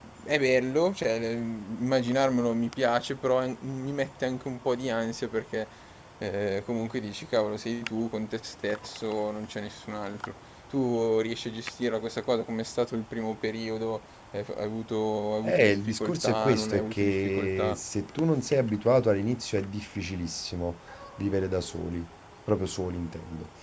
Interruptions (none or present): present